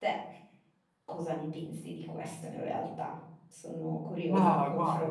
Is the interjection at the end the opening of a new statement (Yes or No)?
Yes